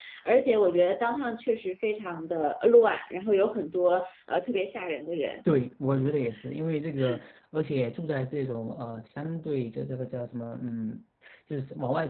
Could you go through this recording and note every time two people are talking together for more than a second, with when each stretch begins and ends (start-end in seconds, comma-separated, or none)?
none